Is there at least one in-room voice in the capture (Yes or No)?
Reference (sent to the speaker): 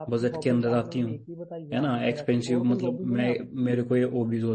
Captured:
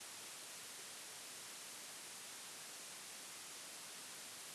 No